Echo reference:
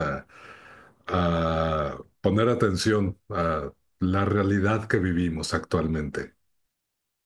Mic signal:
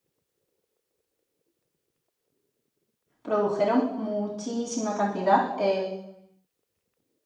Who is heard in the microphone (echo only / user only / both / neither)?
user only